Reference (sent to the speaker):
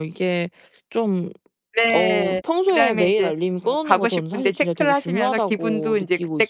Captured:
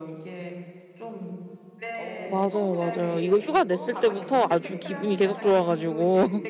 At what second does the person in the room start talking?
2.2 s

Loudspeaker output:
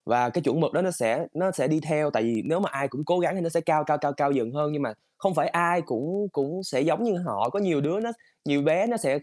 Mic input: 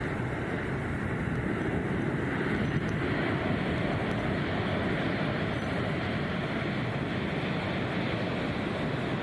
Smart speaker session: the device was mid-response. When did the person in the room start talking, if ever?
none

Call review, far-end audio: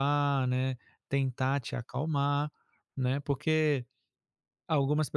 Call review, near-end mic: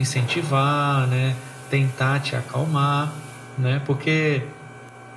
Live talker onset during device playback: none

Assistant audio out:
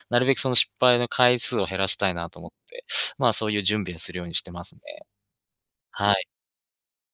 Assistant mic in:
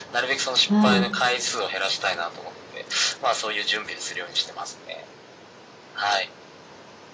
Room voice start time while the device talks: 0.7 s

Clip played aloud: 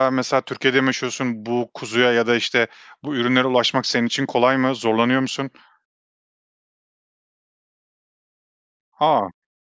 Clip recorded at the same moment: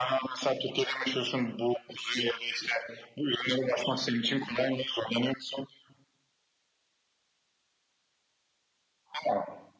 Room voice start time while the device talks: none

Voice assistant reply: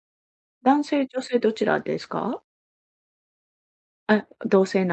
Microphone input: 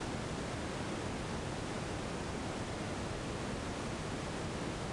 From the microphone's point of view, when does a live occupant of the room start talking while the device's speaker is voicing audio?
none

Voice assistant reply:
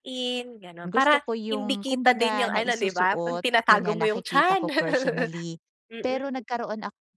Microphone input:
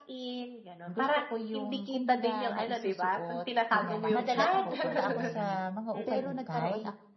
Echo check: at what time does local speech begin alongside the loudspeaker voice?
4.1 s

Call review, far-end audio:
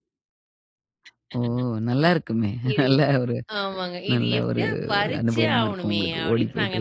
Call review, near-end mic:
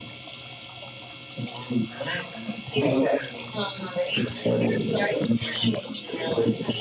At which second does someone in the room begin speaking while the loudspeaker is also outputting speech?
none

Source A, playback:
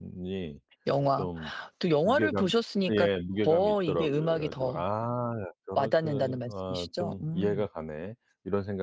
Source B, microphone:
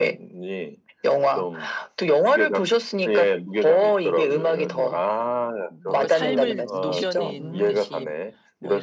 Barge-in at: 4.3 s

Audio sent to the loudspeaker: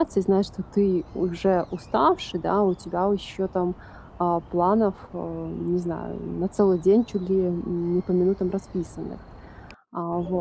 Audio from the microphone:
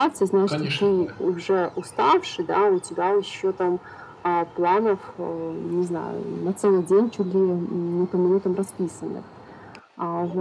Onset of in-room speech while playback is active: 0.4 s

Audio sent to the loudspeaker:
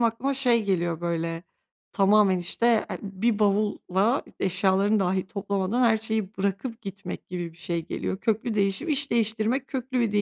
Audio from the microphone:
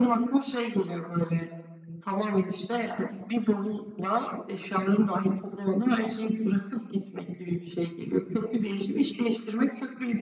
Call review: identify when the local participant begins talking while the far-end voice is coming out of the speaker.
none

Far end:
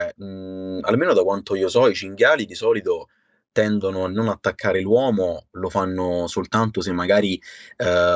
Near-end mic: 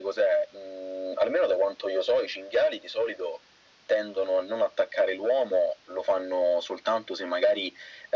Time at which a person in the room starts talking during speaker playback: none

